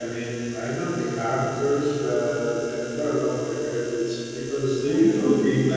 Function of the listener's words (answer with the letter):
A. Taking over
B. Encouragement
B